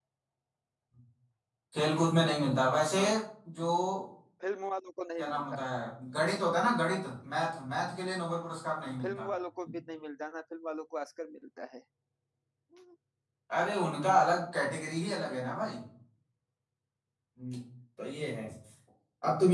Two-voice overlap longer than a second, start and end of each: none

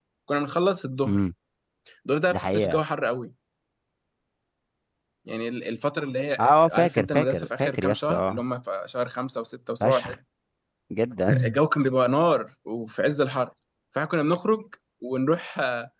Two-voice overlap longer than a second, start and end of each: 6.4-8.4

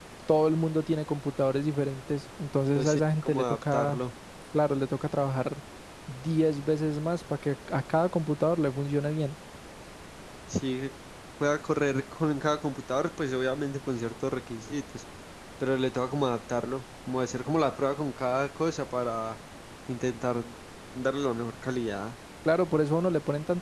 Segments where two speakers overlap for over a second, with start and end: 2.8-4.0

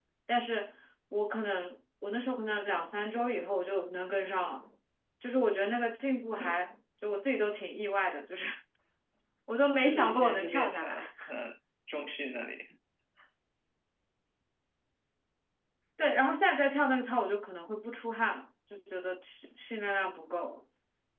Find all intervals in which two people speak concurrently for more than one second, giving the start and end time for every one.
9.8-11.1

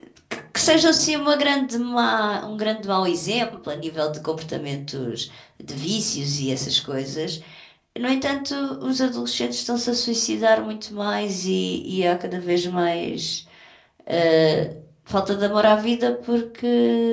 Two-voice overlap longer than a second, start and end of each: none

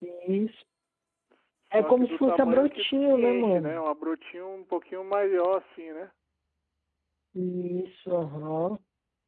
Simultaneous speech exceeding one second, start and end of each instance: 1.7-3.8

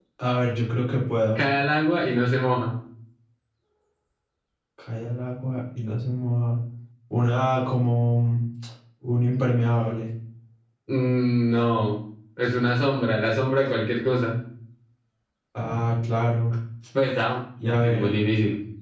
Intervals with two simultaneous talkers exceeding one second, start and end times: none

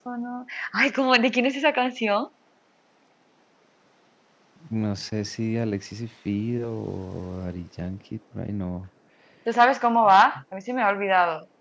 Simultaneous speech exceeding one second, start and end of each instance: none

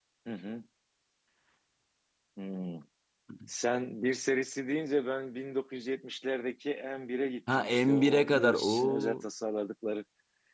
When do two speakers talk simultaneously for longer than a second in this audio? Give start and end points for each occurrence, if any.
7.6-9.2

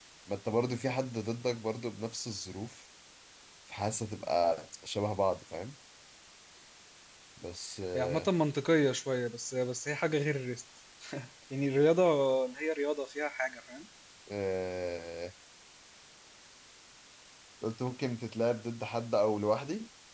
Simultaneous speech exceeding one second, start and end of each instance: none

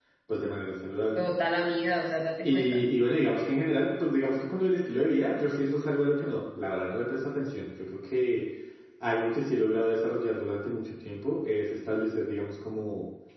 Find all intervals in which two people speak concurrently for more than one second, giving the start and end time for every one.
none

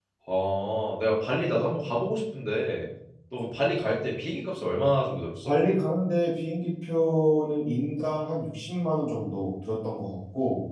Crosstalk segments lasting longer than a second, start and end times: none

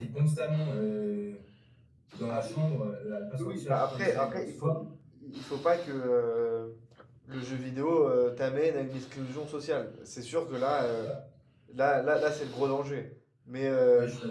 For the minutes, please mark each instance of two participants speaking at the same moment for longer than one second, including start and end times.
3.4-4.7

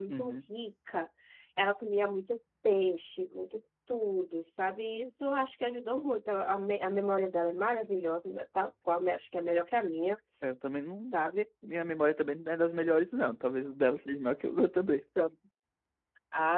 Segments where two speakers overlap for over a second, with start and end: none

